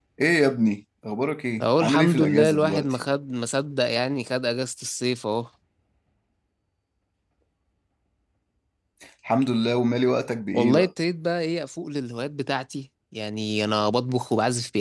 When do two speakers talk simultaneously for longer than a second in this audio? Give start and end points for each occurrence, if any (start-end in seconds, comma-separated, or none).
1.6-3.0